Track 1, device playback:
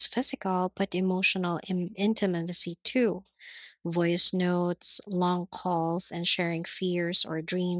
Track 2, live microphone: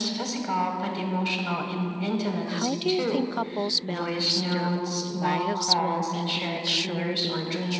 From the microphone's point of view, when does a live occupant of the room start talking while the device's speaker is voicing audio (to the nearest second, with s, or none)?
2 s